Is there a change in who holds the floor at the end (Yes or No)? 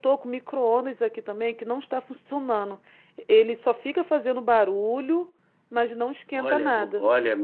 Yes